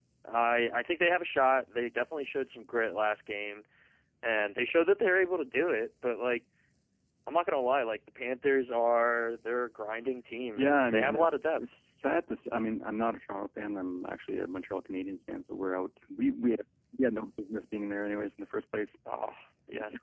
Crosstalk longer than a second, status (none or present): present